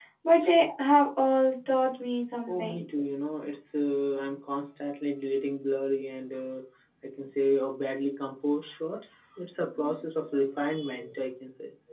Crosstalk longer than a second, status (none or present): none